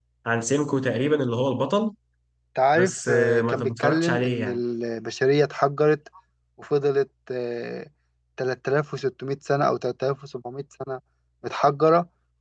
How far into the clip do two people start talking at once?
2.8 s

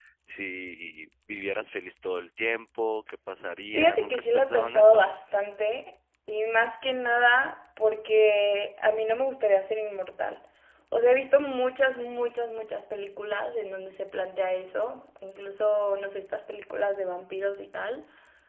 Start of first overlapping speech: 3.7 s

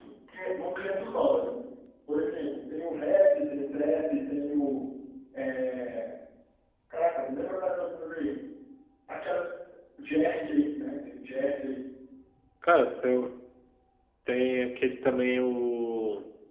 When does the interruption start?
none

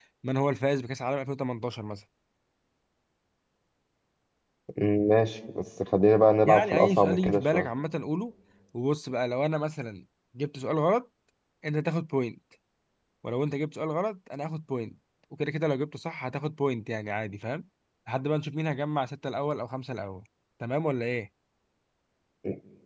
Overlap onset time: 6.5 s

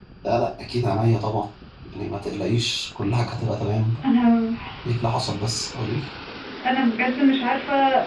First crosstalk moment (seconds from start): none

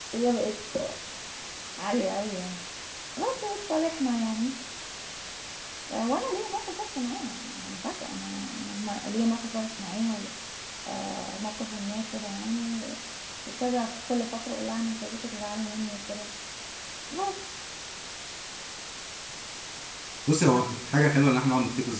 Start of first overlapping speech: none

